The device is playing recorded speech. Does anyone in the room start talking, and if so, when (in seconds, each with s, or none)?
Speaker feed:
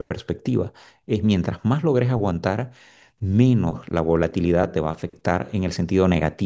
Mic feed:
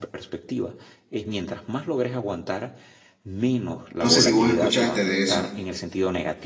4.0 s